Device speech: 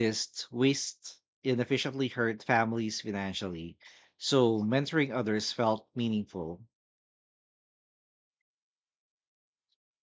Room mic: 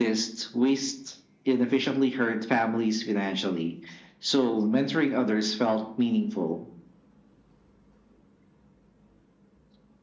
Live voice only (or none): none